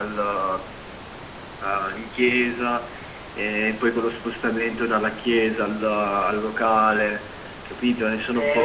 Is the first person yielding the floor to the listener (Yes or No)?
Yes